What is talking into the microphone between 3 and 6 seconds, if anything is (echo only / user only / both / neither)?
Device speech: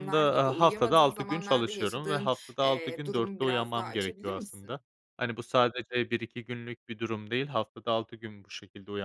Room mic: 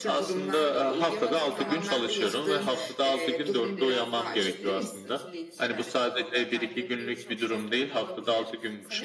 both